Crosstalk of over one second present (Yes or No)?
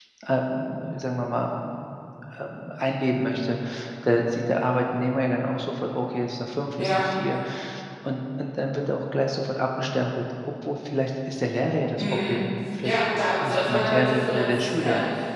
Yes